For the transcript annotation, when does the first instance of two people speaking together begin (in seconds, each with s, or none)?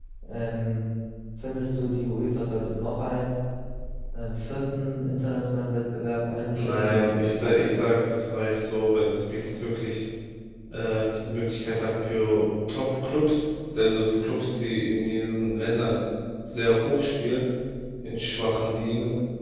6.5 s